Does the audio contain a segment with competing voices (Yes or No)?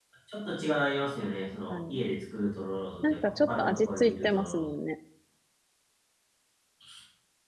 Yes